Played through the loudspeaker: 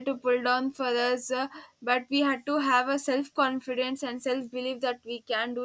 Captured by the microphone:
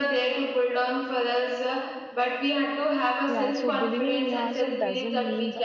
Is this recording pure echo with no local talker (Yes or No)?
No